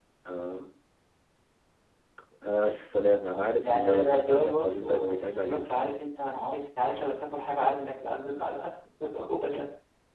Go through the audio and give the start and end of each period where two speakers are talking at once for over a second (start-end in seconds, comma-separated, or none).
3.3-5.8